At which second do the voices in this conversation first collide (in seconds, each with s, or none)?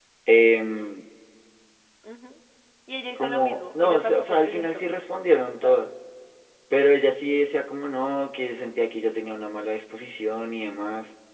3.2 s